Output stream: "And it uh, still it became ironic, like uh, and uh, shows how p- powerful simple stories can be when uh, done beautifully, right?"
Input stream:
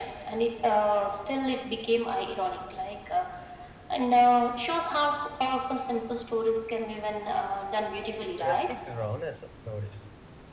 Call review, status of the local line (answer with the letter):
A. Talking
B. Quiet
A